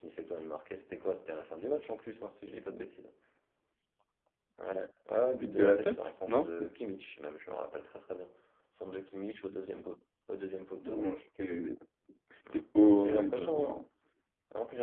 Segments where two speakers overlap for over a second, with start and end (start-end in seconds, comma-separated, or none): 5.3-6.5, 12.5-13.8